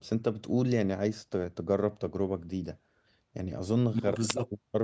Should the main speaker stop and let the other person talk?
No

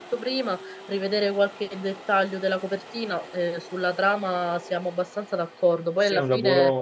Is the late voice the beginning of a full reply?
Yes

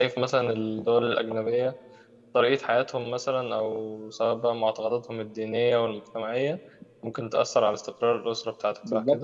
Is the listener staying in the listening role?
No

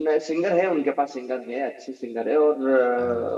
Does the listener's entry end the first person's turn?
No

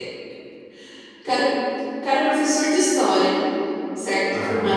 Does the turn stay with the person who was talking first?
Yes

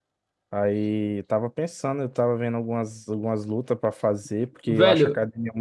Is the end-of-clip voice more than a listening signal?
Yes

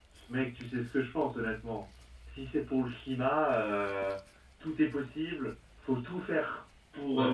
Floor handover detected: No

